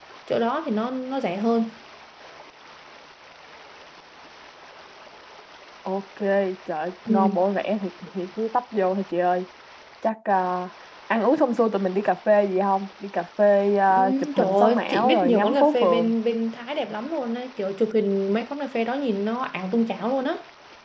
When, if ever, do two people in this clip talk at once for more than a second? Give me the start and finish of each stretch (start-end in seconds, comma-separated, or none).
13.9-16.1